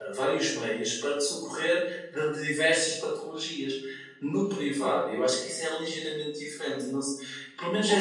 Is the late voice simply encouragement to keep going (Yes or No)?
No